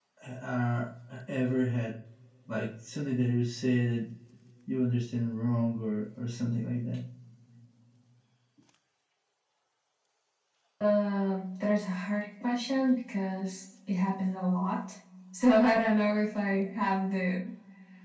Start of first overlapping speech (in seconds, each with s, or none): none